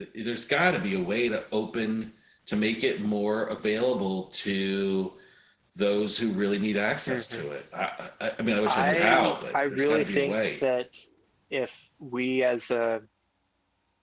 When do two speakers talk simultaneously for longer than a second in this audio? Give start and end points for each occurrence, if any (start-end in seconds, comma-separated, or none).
8.6-10.3